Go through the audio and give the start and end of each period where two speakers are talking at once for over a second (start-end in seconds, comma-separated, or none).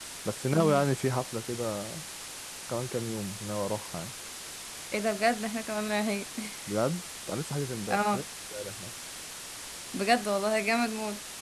none